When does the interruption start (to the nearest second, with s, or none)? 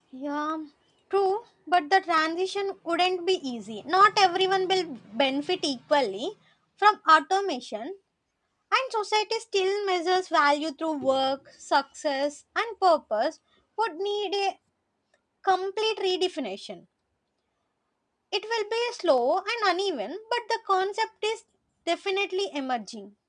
none